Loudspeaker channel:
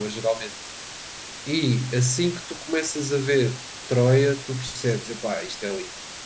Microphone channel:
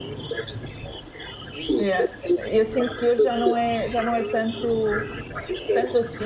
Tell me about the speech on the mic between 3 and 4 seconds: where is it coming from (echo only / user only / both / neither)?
both